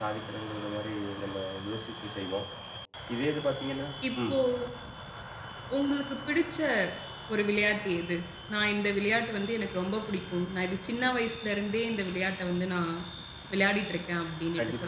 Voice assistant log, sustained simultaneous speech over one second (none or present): none